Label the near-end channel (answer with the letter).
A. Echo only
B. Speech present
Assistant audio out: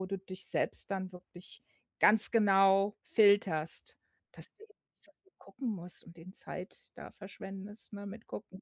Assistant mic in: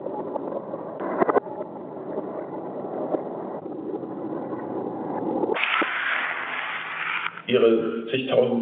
B